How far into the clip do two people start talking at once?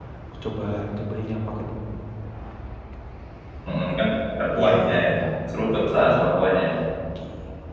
4.6 s

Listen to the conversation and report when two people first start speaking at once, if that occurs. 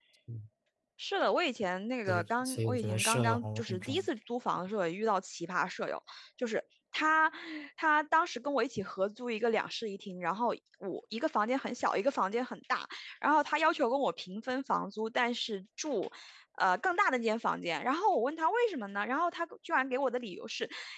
2.1 s

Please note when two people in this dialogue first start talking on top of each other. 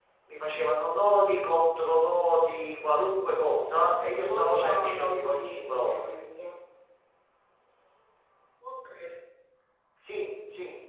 4.0 s

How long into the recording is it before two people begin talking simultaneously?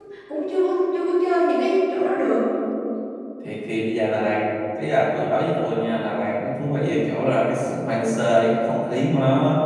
none

